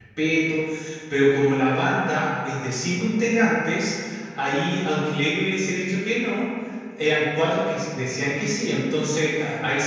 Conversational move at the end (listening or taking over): listening